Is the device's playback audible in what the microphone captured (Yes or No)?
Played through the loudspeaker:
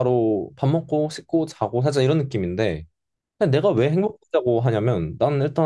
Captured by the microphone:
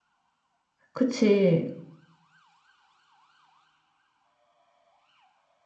No